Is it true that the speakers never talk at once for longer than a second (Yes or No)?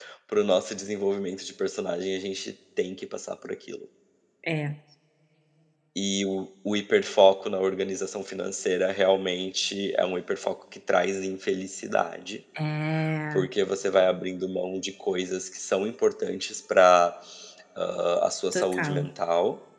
Yes